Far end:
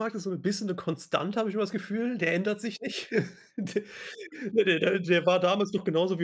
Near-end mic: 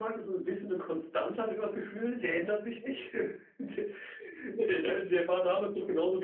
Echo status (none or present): present